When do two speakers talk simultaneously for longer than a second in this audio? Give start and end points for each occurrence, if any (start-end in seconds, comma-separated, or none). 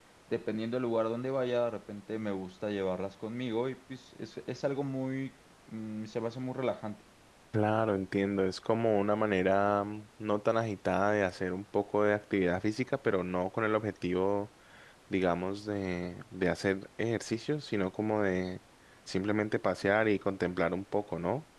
none